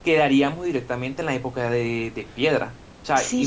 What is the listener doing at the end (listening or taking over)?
listening